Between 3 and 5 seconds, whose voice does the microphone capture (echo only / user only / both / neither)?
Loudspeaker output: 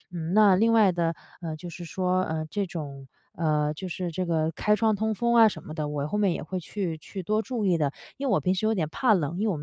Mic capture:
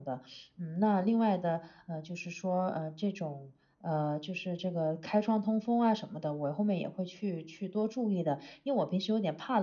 echo only